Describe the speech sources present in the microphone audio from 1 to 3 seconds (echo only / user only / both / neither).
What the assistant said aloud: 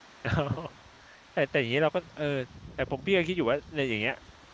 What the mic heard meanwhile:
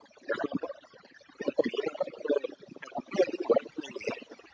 echo only